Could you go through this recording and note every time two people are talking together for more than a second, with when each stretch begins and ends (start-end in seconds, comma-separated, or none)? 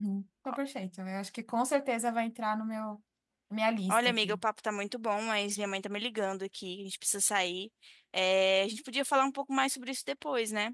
none